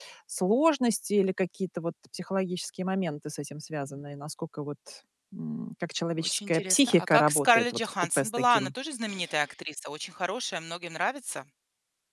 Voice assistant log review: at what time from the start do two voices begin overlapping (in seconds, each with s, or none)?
6.2 s